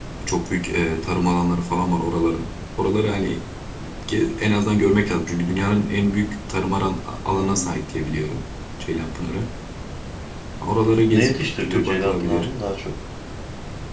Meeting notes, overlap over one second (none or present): present